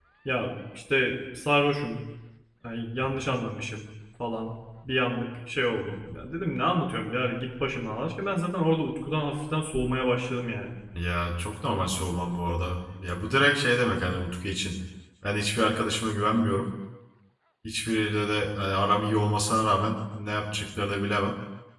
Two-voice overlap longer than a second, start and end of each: none

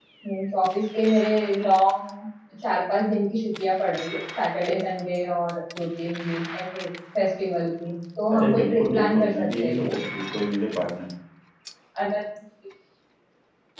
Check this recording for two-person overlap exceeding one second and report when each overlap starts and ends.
8.3-9.9

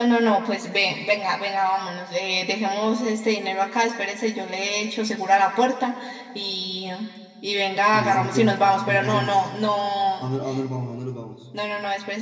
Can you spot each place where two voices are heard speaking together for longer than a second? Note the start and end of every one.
7.9-9.5

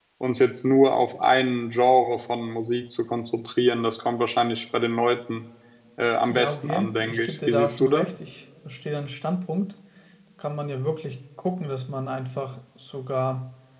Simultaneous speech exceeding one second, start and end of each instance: 6.3-8.1

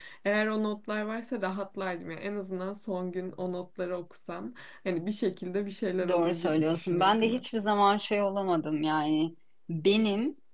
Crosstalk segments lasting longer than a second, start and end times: 6.1-7.4

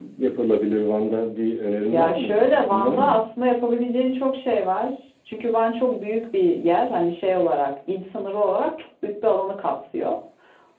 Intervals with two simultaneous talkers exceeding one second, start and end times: 1.9-3.2

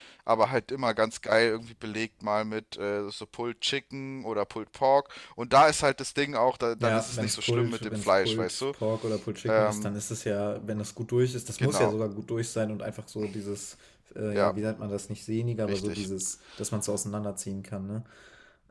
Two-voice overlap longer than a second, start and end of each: 6.8-8.6

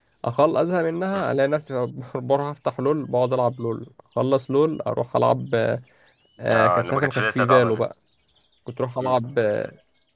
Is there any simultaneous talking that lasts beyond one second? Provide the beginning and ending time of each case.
6.5-7.8

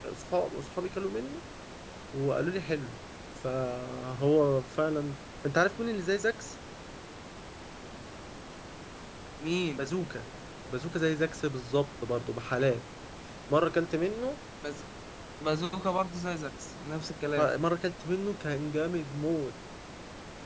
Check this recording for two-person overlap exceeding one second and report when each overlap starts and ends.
none

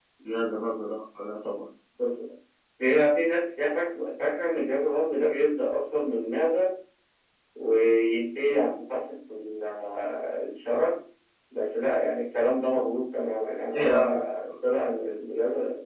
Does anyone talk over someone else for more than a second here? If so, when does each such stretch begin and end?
none

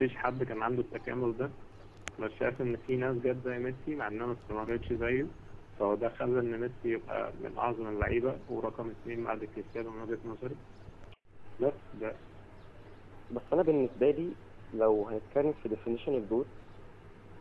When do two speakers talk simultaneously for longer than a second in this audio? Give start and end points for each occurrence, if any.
none

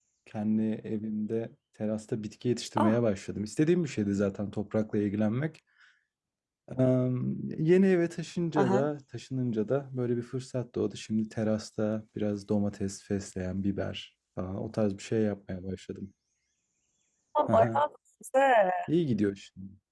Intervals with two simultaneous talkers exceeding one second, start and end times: none

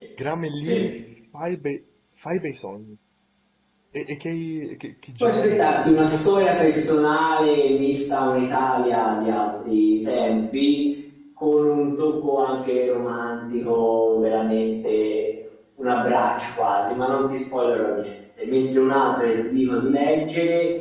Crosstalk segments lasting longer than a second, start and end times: 5.2-6.9

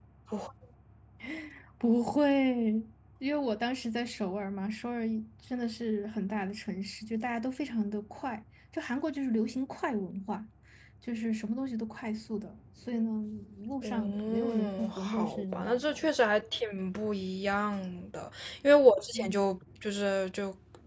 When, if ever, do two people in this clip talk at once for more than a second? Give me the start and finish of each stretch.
13.8-16.1

